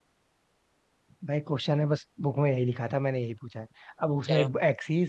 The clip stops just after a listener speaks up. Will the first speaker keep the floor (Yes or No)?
Yes